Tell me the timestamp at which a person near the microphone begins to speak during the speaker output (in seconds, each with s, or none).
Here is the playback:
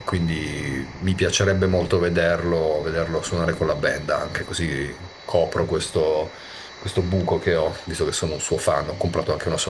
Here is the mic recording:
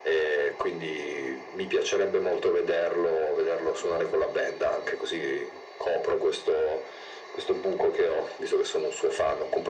none